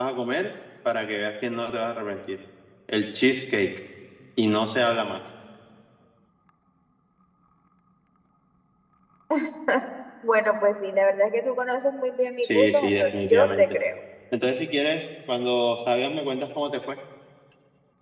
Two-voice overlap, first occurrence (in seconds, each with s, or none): 12.4 s